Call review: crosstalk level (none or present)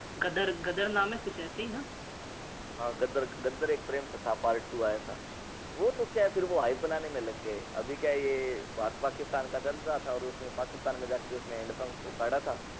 none